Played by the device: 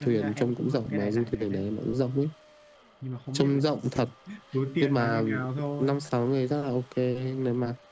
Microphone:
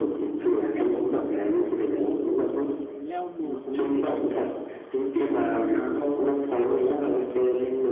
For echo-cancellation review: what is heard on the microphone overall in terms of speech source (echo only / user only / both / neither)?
both